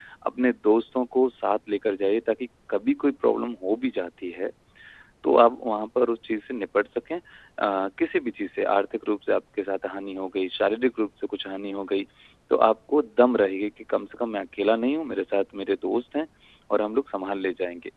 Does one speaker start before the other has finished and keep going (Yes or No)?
No